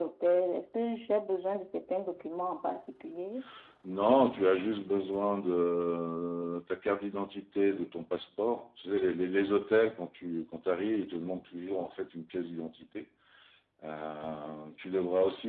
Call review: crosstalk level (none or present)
none